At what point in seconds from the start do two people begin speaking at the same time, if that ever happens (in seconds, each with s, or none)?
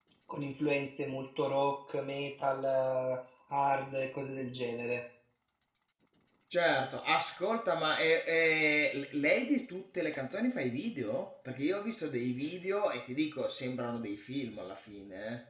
none